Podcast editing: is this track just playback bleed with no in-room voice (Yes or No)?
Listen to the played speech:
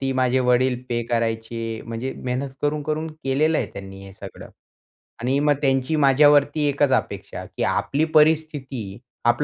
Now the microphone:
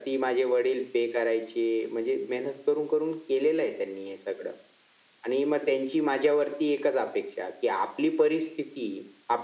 Yes